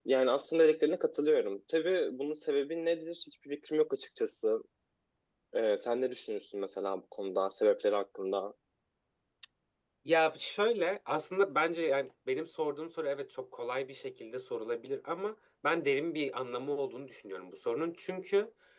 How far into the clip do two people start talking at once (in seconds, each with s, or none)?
none